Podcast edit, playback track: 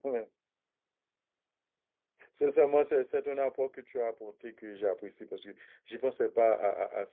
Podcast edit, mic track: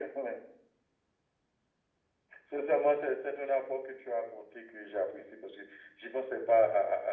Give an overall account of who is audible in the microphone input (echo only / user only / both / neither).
echo only